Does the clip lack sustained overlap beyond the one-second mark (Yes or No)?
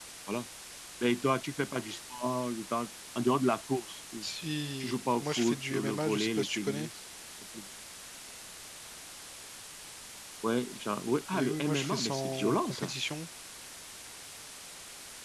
No